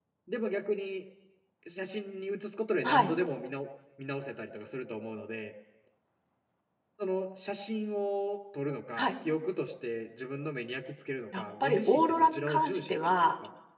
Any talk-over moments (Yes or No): Yes